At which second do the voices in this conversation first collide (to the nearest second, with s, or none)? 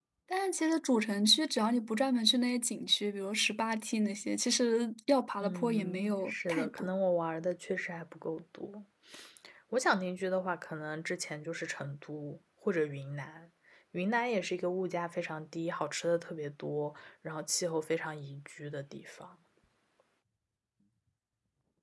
5 s